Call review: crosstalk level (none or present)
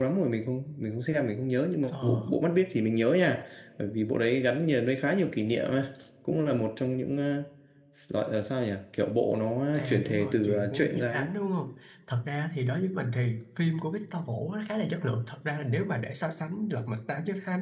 present